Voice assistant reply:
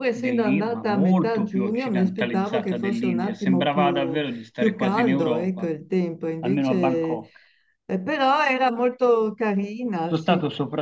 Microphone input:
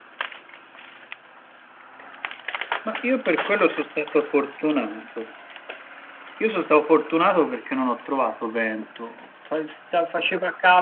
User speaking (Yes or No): Yes